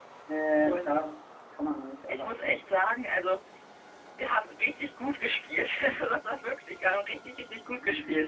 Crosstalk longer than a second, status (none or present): none